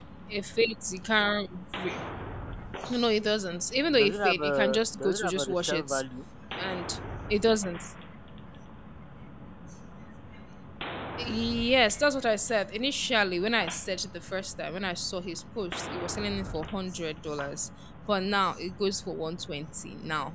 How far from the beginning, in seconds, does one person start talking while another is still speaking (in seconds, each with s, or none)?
3.9 s